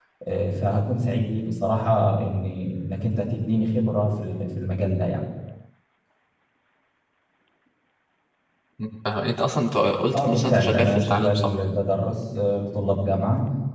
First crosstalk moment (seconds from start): 10.1 s

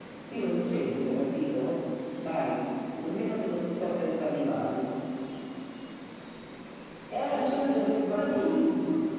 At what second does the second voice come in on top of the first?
7.3 s

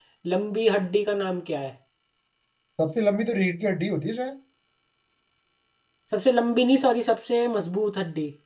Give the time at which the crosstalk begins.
none

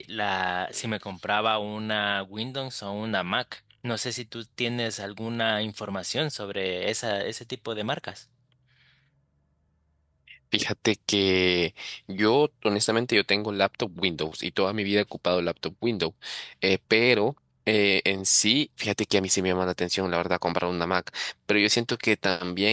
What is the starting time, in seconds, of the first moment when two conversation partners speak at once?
none

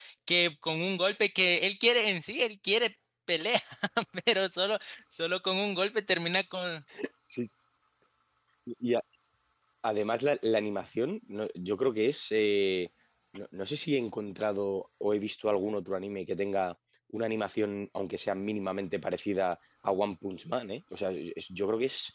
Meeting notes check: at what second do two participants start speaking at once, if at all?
none

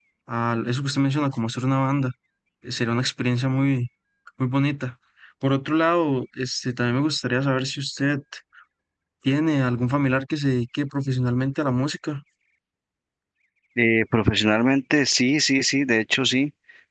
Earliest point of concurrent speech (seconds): none

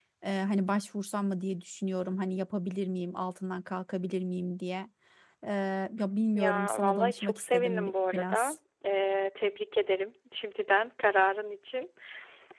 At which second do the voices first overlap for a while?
6.3 s

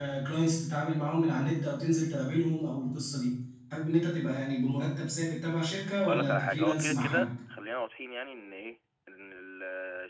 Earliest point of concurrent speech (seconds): 6.1 s

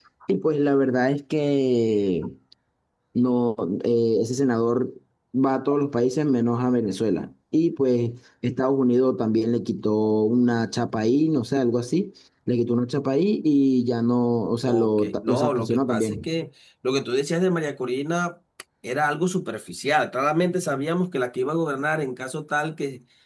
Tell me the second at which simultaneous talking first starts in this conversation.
14.6 s

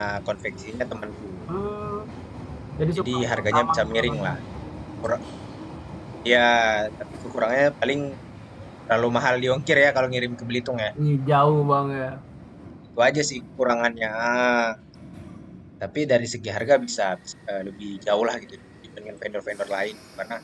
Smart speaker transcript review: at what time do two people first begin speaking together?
3.0 s

